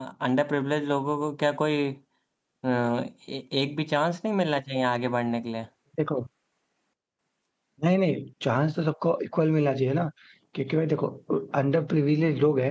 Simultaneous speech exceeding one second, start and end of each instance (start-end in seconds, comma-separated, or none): none